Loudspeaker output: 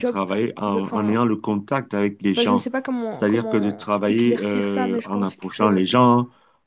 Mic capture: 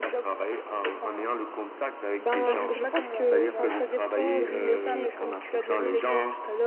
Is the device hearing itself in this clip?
Yes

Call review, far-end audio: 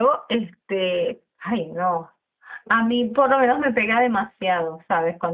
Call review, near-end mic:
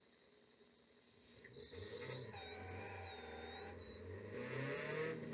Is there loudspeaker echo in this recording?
No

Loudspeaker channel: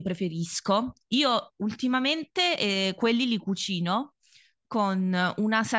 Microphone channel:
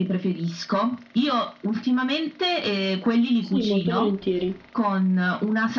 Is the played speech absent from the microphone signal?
No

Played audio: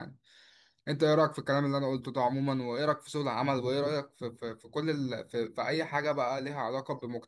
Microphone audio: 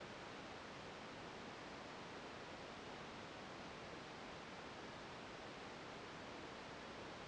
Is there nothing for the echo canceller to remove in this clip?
Yes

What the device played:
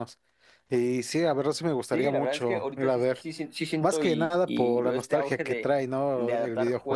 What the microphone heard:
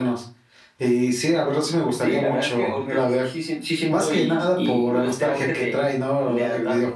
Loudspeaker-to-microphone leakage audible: Yes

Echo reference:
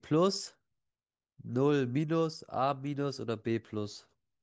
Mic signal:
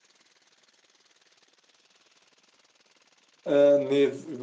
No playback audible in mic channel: Yes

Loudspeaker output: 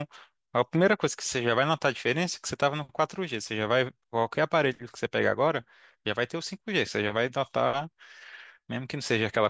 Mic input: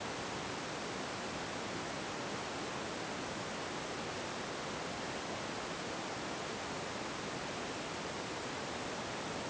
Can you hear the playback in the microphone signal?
No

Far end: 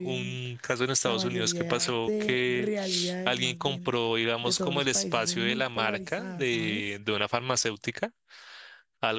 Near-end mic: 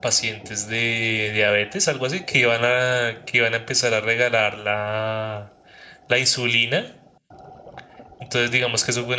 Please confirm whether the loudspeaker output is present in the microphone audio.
No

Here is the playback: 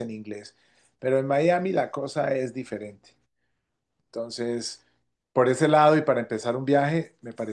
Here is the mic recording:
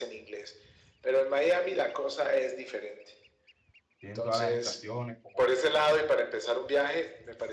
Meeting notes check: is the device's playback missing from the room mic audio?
No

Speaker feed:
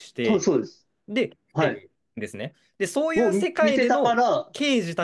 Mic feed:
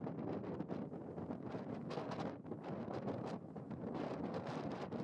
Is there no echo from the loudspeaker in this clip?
Yes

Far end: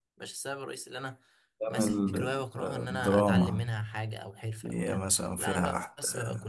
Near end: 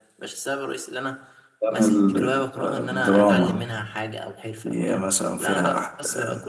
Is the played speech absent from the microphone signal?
No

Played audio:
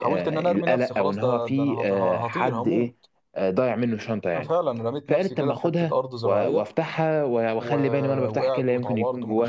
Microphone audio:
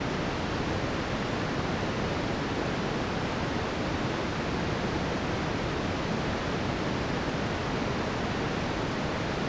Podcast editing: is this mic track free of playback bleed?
Yes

